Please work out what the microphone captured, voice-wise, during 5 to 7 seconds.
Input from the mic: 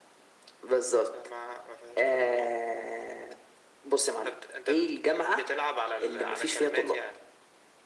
echo only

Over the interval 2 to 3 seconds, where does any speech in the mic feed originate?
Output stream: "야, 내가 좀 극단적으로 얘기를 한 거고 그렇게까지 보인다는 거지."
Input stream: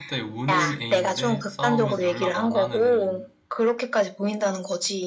both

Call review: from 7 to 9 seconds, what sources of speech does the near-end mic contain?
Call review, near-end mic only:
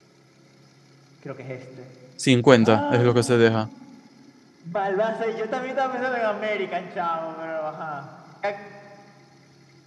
echo only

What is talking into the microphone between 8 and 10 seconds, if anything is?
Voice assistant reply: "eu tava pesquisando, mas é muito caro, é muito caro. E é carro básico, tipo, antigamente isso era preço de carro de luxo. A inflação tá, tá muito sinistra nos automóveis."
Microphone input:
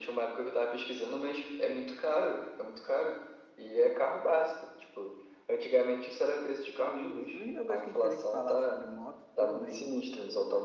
both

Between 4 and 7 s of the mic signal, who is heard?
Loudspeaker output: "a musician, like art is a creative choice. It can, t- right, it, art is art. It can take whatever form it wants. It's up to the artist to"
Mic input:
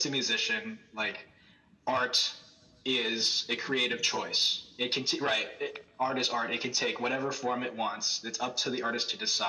echo only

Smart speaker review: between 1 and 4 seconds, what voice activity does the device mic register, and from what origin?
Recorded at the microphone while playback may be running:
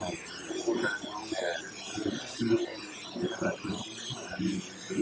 echo only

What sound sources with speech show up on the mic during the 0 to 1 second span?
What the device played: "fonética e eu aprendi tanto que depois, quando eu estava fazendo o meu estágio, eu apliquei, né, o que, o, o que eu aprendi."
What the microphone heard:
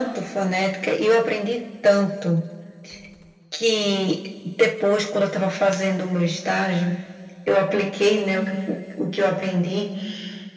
echo only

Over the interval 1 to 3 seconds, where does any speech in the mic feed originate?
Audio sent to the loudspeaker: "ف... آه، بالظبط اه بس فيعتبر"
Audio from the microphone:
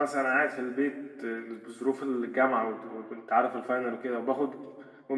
user only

